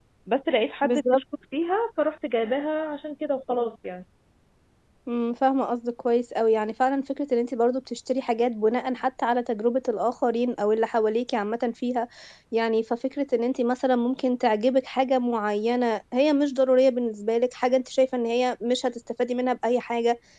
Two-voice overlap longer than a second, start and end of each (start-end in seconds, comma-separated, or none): none